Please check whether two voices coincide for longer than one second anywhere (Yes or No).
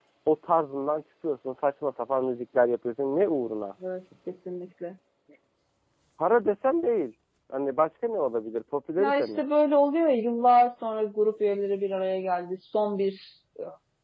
No